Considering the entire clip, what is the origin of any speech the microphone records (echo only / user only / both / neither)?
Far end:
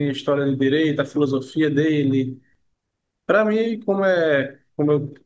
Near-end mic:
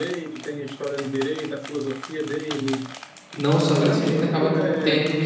both